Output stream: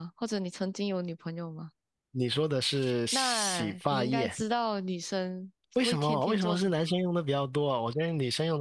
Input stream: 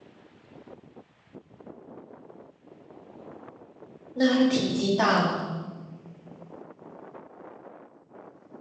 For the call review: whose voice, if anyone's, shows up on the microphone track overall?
user only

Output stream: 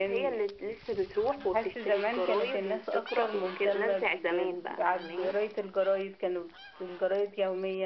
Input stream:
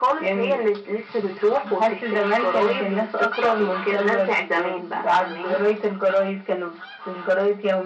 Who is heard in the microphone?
echo only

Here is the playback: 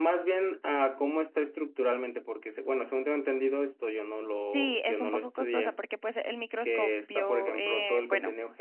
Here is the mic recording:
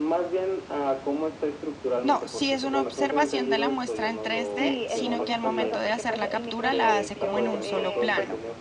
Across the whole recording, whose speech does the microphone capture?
both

